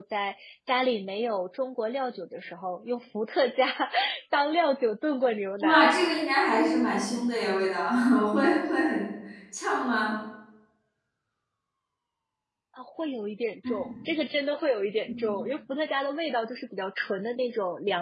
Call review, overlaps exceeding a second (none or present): none